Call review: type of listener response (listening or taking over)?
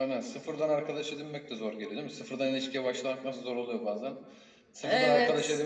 listening